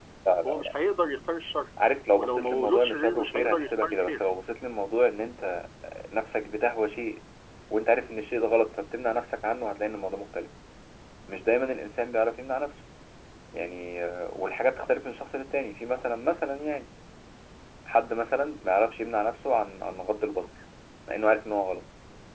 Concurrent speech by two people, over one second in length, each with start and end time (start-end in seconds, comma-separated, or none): 2.1-4.2